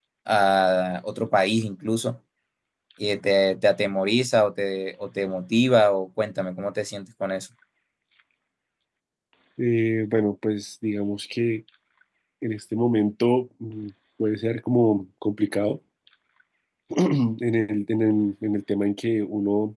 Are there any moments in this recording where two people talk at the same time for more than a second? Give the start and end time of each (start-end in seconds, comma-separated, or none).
none